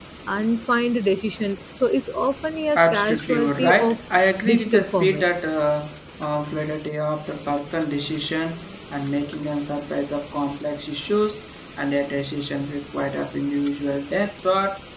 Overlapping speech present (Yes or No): Yes